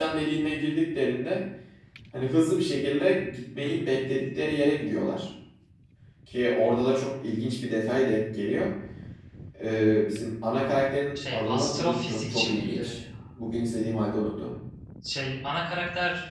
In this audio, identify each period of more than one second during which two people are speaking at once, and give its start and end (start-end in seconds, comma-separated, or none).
11.3-13.0